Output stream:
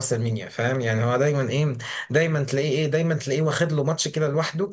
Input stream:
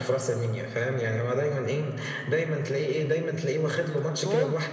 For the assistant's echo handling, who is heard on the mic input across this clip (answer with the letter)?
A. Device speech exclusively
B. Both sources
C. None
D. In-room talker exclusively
B